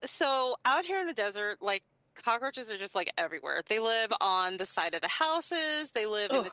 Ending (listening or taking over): listening